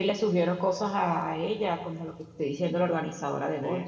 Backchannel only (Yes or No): No